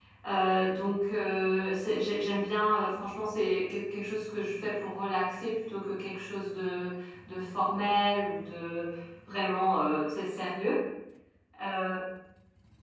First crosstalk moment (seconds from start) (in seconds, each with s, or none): none